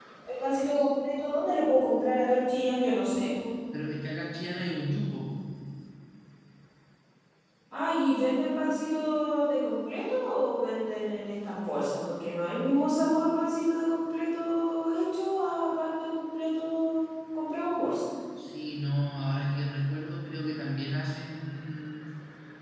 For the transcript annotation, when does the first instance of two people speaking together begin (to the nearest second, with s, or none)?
none